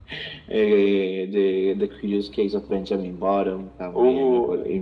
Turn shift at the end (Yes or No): No